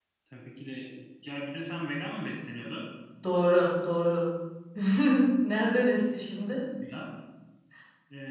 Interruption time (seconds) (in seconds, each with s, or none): none